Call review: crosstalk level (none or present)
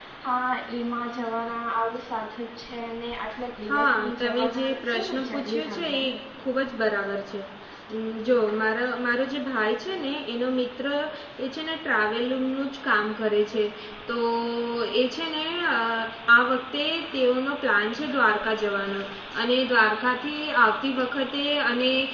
present